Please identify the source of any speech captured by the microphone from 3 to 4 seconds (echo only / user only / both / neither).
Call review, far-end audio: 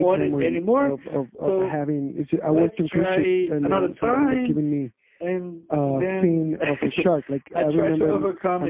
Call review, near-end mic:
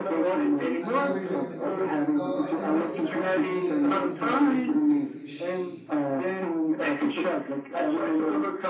both